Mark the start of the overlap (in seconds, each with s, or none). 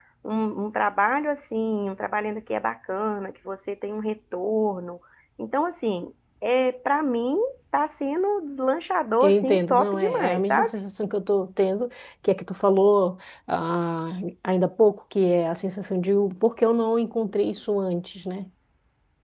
9.2 s